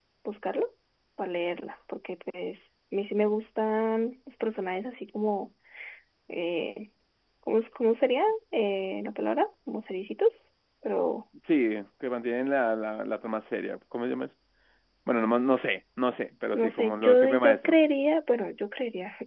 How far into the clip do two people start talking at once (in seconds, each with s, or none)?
16.5 s